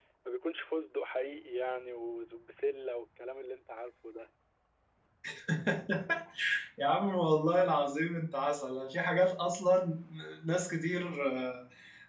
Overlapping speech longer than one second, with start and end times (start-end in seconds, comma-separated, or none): none